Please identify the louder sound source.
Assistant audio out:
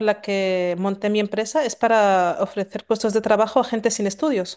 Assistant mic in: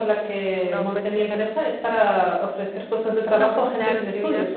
echo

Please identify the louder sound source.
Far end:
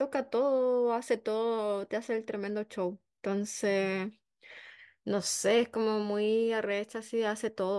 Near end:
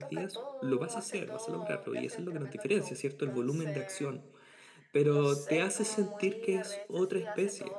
user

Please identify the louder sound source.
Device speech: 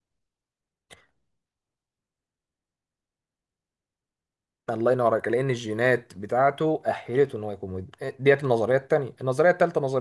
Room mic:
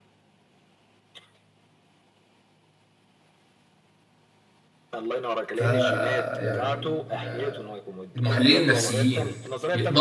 user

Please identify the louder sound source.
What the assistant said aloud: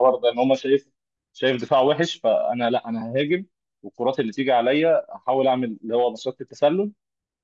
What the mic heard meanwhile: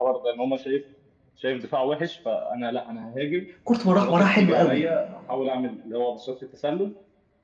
user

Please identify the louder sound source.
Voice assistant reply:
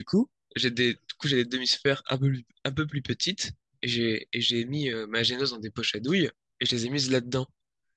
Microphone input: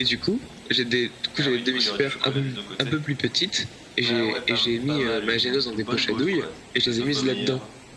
echo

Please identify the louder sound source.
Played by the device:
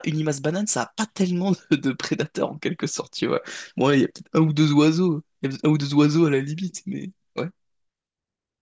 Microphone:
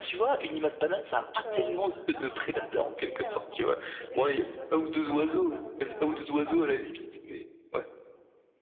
echo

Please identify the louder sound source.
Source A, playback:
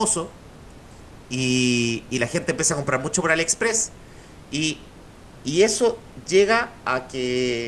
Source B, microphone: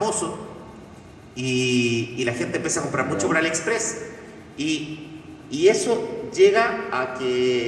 echo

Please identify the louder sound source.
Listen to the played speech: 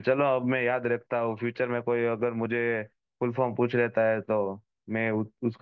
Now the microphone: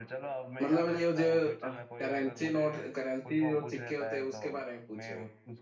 user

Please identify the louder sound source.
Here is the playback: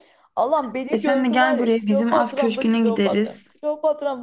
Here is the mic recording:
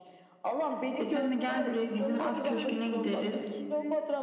echo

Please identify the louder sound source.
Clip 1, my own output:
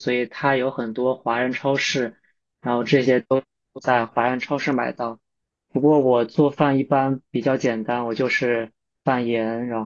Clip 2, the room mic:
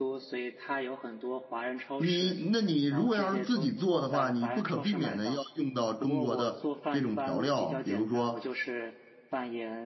user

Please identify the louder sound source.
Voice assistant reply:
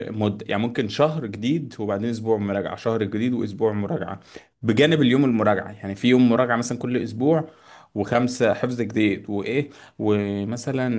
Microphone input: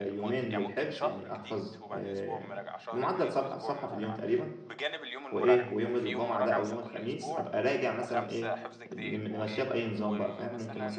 user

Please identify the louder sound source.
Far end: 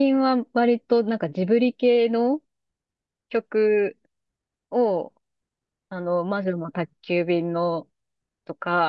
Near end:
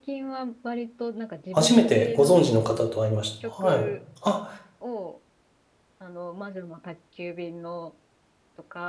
user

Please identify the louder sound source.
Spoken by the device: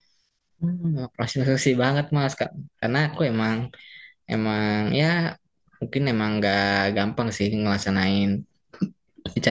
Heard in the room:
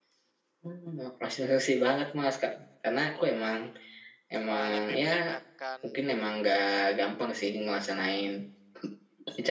echo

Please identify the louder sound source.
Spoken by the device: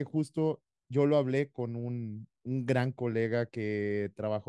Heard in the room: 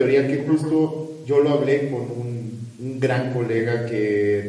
echo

